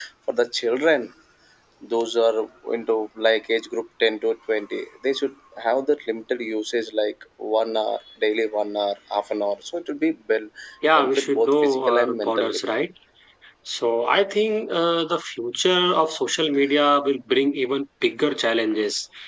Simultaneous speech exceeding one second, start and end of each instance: 10.9-12.6

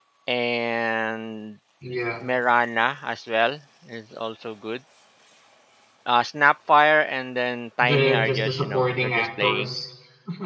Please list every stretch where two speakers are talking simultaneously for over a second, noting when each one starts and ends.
7.8-9.7

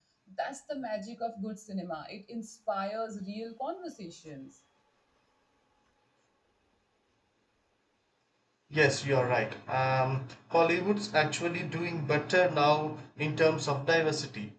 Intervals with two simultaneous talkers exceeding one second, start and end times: none

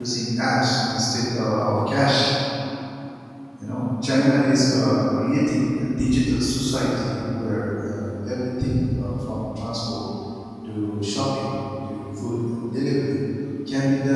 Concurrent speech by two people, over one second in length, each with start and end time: none

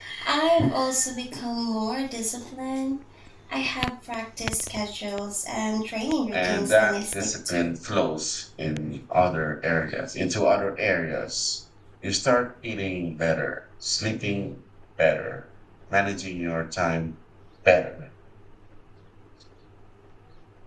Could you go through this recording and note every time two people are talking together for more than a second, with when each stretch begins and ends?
6.3-7.7

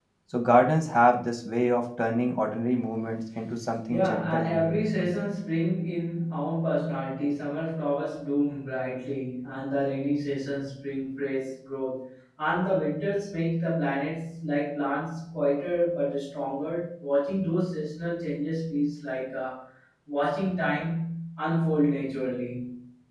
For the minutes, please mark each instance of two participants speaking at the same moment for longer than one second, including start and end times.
3.9-5.1

